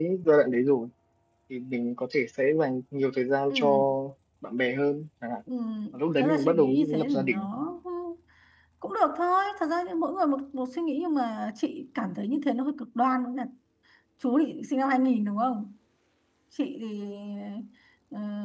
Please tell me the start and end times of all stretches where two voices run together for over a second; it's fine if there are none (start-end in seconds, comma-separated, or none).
6.2-7.5